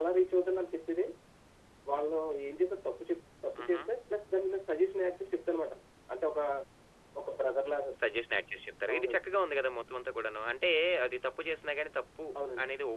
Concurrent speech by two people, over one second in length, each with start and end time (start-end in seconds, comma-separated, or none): none